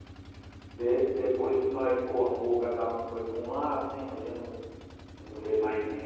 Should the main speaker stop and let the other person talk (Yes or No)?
Yes